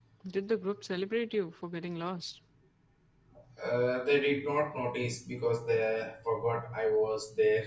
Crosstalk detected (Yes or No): No